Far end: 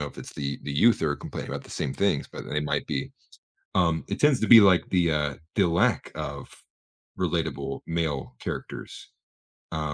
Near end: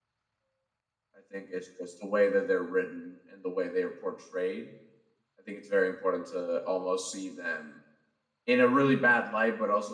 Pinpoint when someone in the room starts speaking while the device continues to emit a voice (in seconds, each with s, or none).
1.2 s